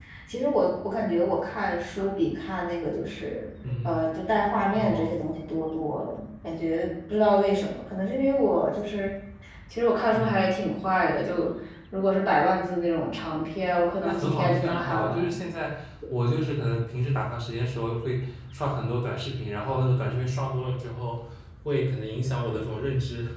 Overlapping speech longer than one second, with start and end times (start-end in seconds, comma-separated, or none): 14.0-15.2